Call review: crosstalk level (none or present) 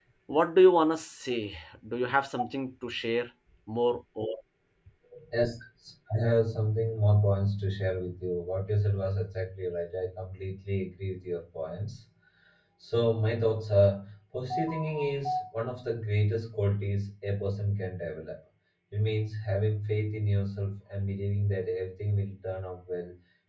none